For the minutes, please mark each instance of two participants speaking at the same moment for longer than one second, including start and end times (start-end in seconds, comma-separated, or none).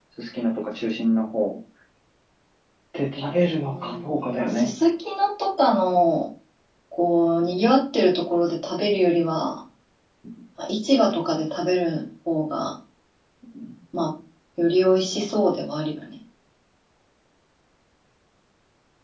3.3-4.7